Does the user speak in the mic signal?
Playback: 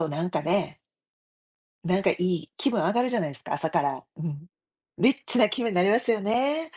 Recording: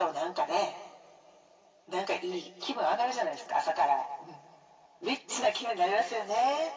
No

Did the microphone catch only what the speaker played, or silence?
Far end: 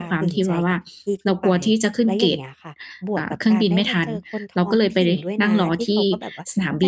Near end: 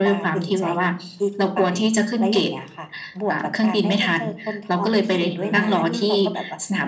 No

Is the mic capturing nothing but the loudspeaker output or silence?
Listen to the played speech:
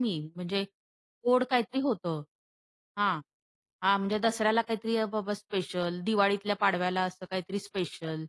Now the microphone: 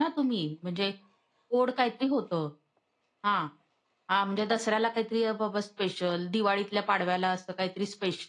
Yes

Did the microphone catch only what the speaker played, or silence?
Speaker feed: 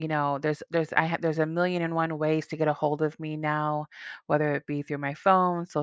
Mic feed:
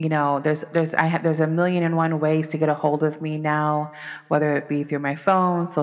Yes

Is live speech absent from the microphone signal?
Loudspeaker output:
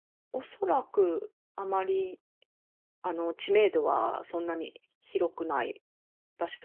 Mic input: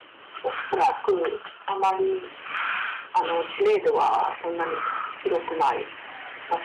Yes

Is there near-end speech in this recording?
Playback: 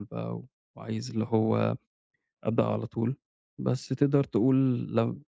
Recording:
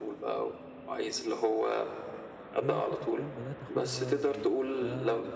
Yes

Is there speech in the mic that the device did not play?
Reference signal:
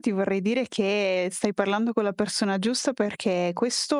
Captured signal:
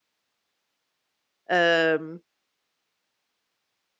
Yes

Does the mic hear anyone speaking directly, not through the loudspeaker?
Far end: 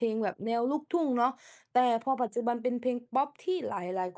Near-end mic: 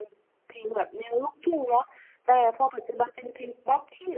No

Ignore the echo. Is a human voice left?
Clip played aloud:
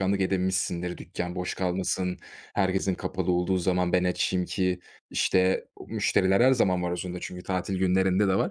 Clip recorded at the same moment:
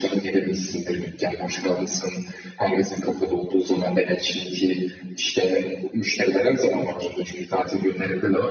No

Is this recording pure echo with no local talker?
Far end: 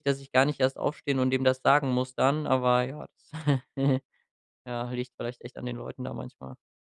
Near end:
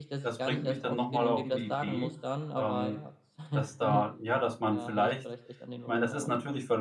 No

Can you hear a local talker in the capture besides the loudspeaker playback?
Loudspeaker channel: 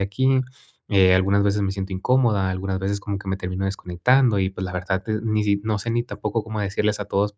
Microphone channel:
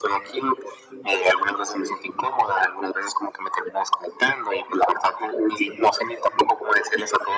No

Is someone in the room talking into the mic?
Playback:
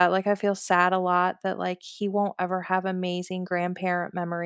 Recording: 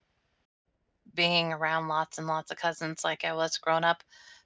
Yes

